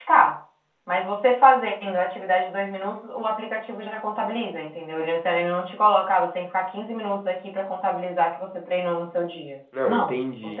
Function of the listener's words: taking over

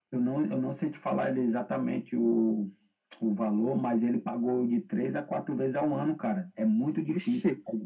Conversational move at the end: taking over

